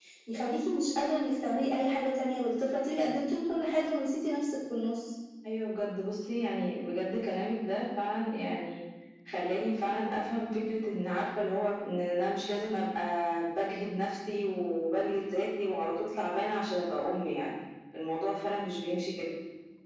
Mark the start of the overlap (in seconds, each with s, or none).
none